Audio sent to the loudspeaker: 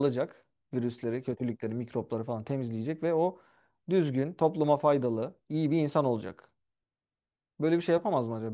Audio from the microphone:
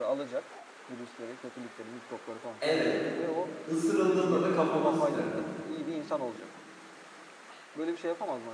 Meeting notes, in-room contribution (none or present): present